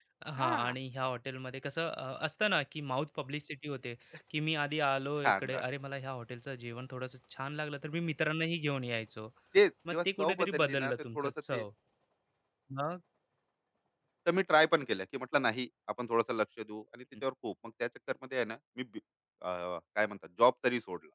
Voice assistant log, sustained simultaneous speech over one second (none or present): present